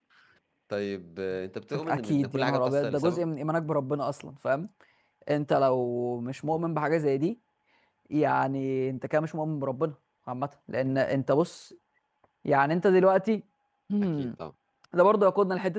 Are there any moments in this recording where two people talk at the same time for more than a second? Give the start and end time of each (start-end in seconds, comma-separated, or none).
1.8-3.2